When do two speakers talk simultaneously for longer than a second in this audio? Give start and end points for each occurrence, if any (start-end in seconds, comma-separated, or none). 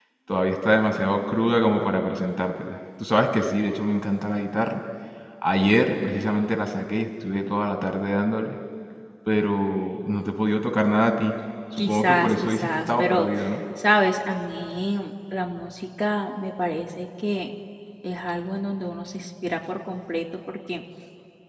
11.8-13.3